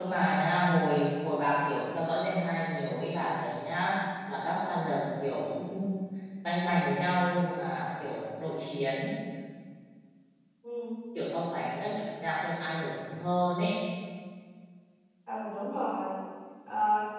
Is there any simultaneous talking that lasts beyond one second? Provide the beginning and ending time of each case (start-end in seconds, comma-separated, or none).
none